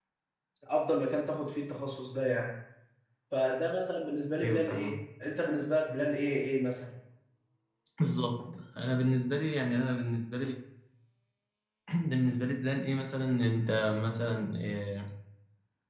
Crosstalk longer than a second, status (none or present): none